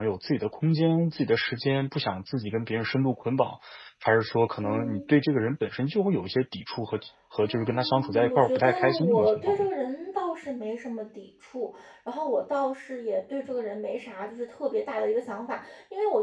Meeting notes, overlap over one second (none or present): present